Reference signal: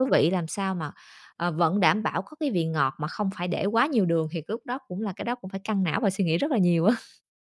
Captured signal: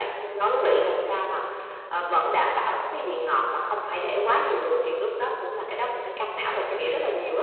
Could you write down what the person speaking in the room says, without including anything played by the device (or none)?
none